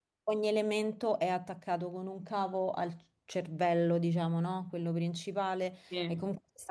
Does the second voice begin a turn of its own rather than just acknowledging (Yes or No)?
No